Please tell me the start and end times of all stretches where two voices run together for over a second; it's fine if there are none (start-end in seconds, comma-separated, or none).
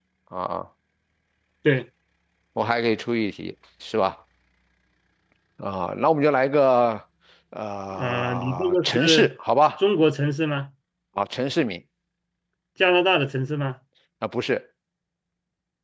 8.0-9.3